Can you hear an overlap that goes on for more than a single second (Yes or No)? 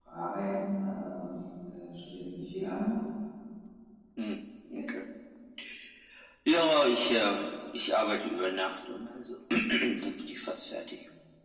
No